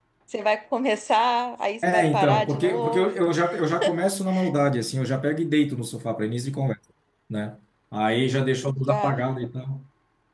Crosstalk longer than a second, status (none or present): present